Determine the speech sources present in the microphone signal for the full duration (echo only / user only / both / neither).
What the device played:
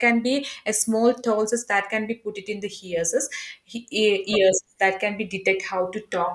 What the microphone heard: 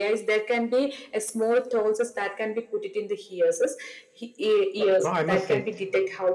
both